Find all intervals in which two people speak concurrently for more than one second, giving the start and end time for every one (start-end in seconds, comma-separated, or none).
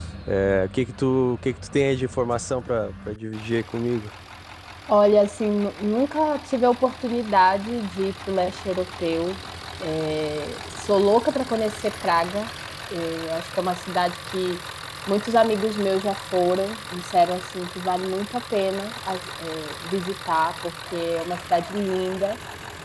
none